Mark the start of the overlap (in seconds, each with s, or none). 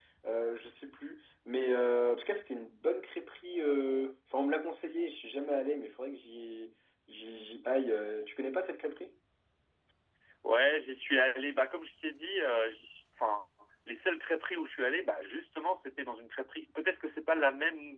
none